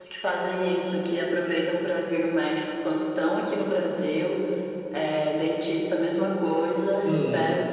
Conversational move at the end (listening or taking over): listening